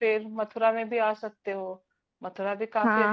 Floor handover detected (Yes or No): Yes